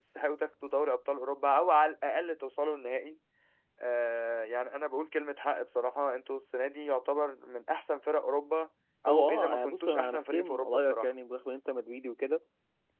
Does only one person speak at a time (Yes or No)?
No